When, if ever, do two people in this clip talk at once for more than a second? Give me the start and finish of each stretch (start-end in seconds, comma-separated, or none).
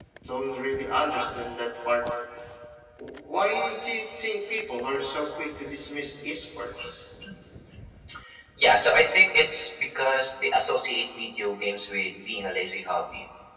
none